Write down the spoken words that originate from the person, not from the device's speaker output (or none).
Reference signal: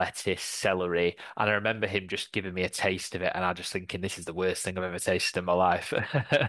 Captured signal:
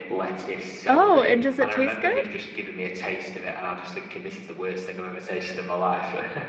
Oh, and does it taste good?